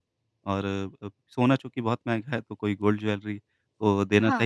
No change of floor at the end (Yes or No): Yes